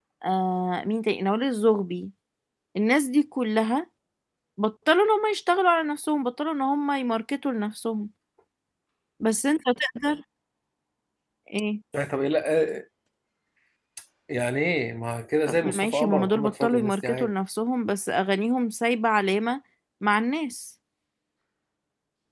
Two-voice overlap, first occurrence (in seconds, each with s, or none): 15.5 s